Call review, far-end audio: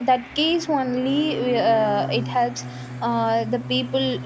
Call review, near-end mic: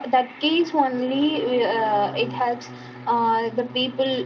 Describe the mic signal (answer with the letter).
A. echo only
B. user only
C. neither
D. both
A